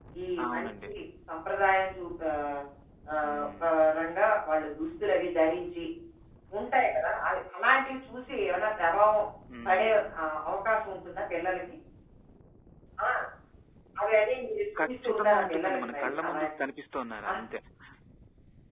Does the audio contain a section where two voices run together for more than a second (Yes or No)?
Yes